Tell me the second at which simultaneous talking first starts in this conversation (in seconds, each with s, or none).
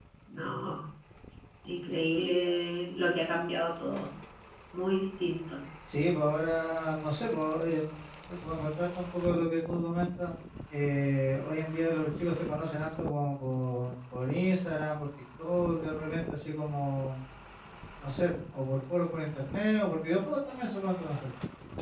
none